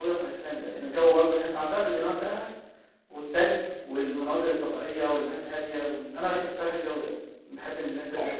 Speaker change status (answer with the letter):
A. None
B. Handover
B